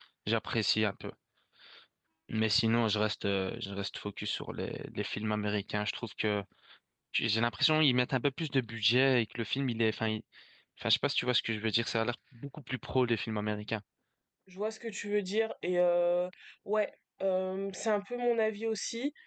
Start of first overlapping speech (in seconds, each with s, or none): none